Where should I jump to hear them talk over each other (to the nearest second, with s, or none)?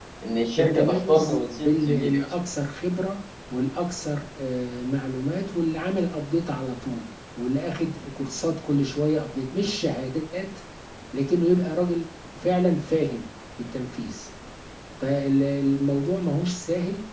1 s